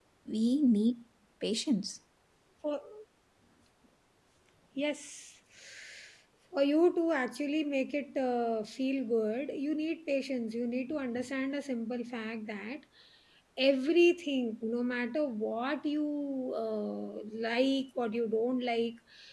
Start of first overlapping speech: none

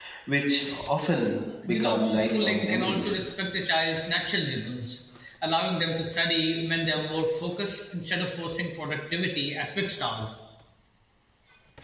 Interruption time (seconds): 1.7 s

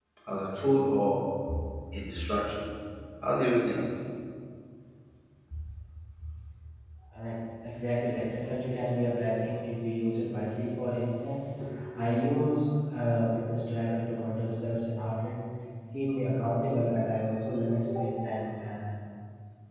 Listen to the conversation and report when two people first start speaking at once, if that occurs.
none

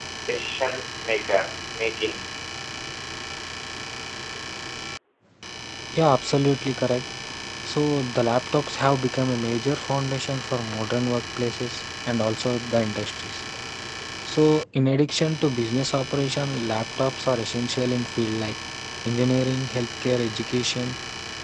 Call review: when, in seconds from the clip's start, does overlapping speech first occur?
none

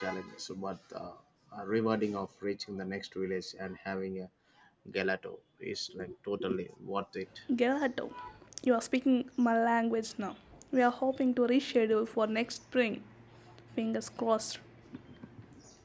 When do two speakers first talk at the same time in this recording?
none

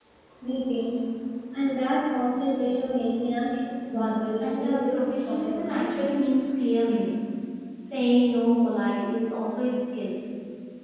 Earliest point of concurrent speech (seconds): 3.9 s

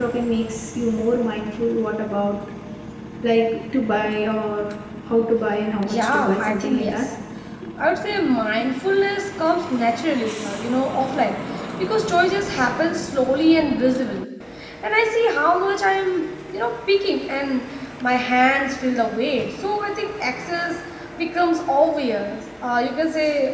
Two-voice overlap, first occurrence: 5.8 s

